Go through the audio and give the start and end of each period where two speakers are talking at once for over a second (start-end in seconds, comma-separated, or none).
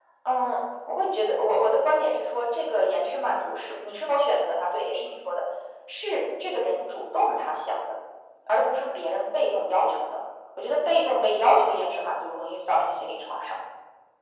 none